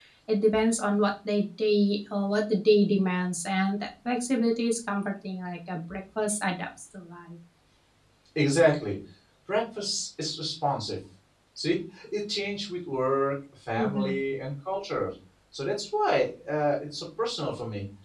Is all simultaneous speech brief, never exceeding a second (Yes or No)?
Yes